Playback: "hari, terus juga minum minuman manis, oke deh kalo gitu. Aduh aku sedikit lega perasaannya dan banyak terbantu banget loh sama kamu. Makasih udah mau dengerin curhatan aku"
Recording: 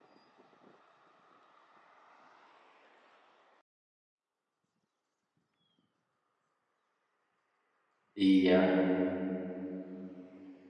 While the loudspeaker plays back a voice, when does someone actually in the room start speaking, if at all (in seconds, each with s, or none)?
8.2 s